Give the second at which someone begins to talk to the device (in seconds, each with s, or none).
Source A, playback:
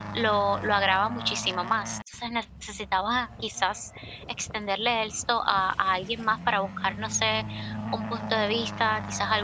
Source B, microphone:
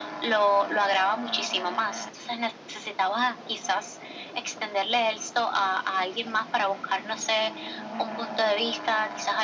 none